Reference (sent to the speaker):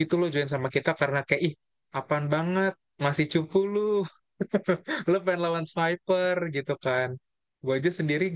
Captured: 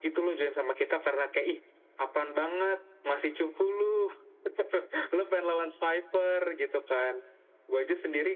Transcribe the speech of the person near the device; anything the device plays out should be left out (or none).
none